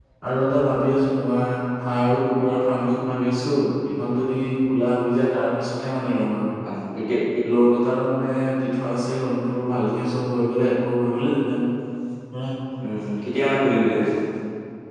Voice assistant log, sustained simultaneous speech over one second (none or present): none